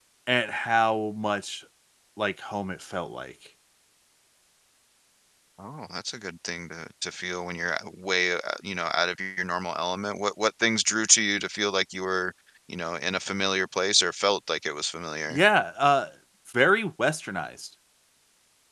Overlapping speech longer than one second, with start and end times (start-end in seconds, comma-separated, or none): none